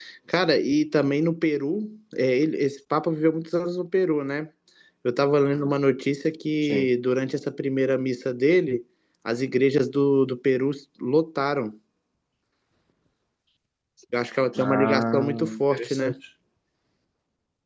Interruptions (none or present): present